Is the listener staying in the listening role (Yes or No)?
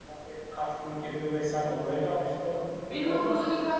No